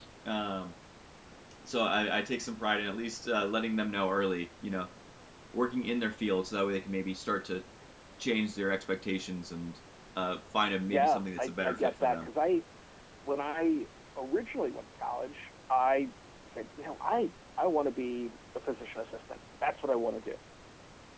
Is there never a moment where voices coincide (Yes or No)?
No